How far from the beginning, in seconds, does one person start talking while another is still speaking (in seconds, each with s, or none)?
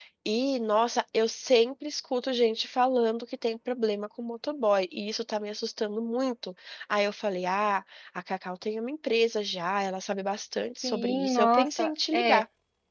10.8 s